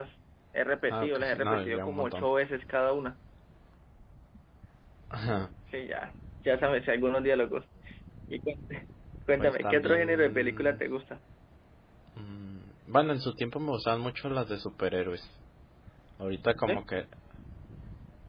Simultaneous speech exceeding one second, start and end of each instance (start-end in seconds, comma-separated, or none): 0.9-2.3, 9.3-10.8